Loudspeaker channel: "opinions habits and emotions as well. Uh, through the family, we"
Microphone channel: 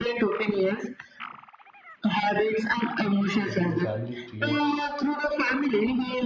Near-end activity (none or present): present